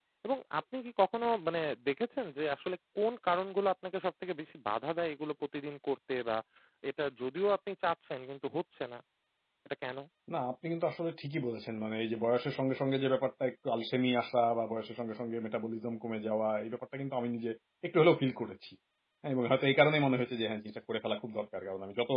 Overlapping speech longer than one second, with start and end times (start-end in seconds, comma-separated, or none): none